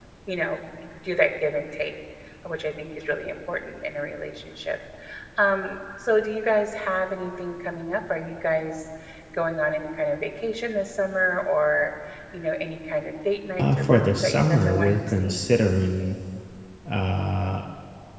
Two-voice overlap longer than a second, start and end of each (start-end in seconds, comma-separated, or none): 13.6-15.5